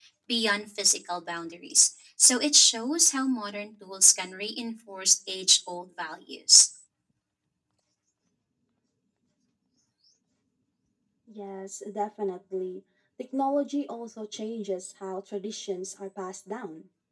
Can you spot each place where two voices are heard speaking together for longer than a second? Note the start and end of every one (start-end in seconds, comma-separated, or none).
none